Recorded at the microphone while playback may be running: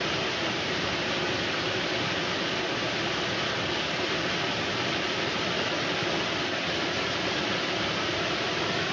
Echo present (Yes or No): No